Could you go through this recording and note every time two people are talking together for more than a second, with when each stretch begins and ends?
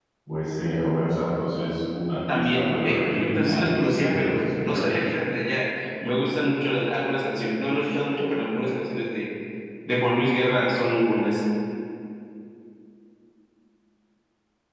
2.3-4.9

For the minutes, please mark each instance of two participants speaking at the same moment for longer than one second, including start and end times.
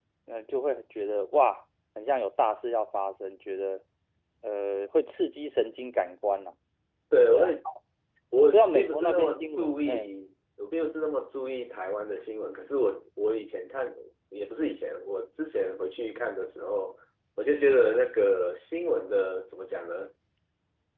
8.5-10.1

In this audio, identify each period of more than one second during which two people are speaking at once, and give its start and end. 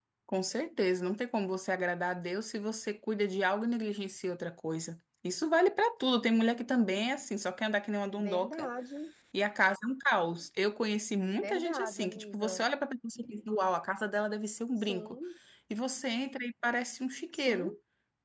11.4-12.7

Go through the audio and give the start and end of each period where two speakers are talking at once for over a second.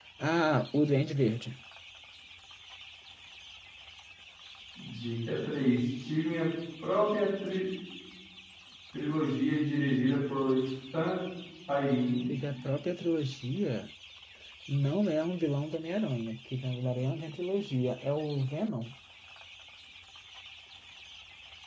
none

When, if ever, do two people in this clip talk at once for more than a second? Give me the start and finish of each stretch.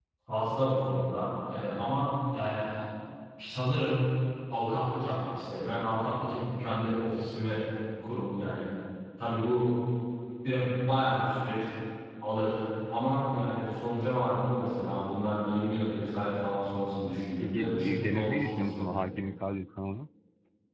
17.3-18.9

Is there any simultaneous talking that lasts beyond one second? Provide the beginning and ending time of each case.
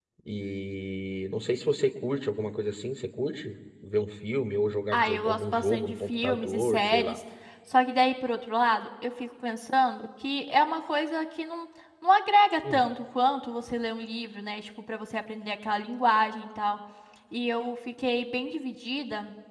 4.9-7.2

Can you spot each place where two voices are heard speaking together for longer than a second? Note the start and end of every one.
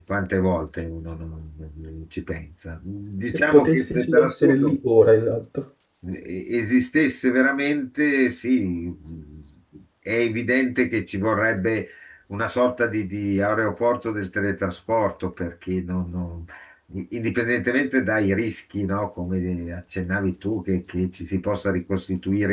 3.3-4.8

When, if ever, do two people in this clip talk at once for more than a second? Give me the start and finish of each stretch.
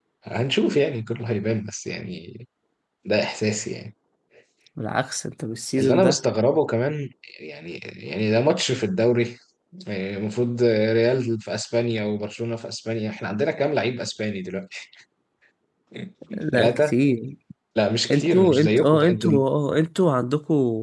18.1-19.3

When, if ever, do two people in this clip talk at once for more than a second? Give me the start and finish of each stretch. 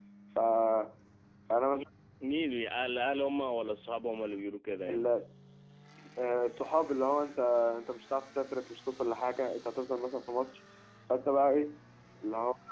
none

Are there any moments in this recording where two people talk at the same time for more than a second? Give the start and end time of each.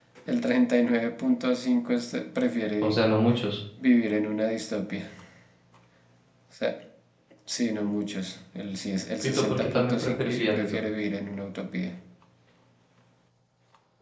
9.2-10.8

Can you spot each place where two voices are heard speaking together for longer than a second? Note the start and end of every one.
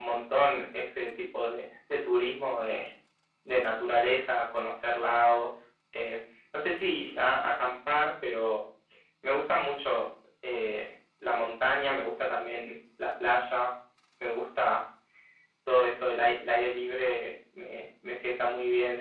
none

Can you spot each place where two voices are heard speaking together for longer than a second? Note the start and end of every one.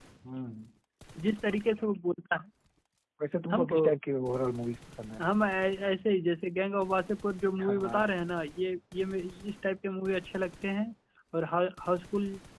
none

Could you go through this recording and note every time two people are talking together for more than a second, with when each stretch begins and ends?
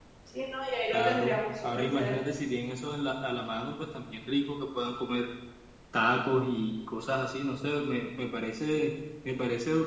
0.9-2.2

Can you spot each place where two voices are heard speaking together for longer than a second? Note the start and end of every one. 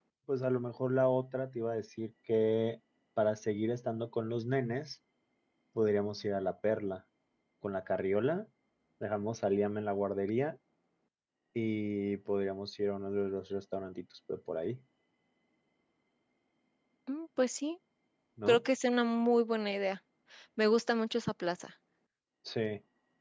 none

